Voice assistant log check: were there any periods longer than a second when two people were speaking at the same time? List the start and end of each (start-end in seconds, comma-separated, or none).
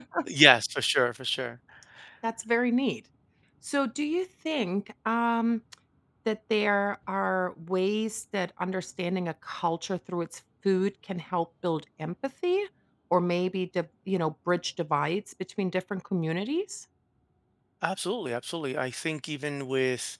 none